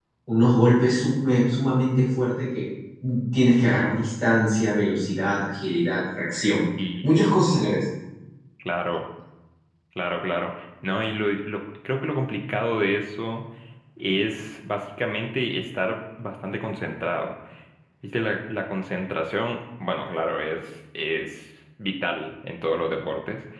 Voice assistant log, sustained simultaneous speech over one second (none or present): none